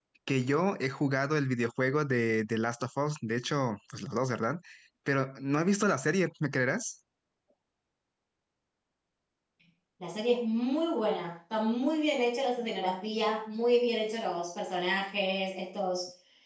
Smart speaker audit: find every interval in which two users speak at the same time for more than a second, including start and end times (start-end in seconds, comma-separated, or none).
none